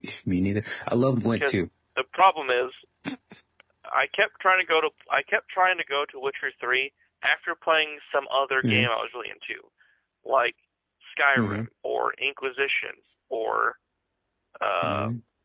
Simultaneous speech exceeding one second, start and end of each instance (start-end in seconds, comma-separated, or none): none